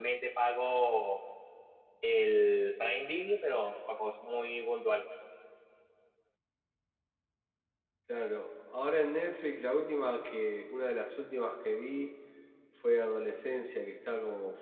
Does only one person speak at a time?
Yes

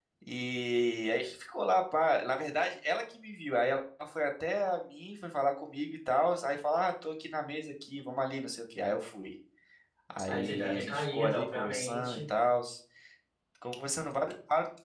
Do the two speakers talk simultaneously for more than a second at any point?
Yes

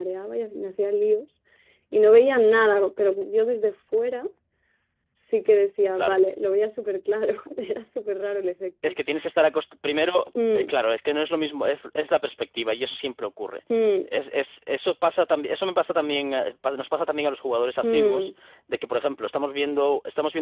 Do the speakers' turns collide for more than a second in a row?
No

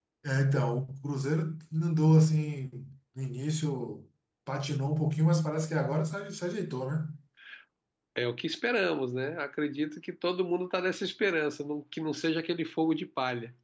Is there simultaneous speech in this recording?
No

